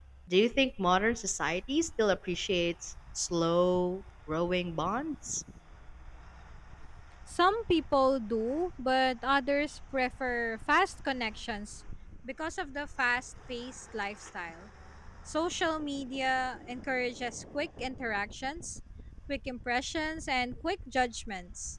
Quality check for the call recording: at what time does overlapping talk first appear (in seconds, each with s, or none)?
none